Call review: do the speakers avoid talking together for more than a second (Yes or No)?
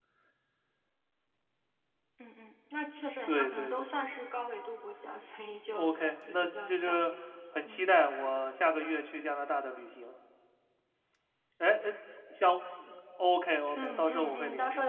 No